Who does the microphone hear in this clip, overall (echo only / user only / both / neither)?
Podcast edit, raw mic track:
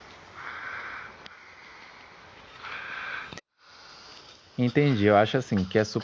user only